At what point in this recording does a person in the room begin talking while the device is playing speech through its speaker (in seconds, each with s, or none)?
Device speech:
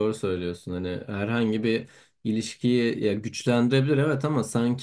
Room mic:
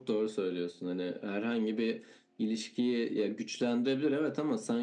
none